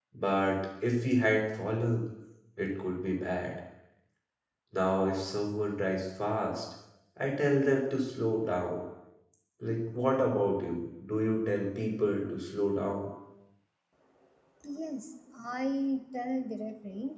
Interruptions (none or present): none